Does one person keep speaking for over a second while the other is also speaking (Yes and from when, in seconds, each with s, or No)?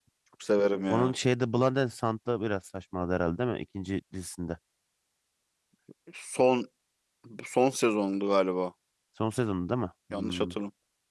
No